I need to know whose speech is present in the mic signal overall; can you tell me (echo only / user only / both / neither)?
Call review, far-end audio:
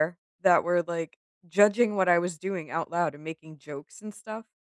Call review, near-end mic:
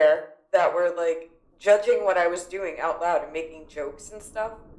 echo only